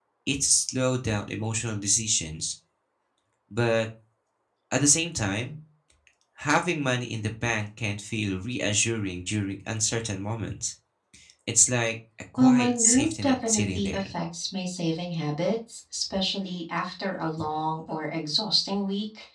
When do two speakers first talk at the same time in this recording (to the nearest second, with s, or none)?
12 s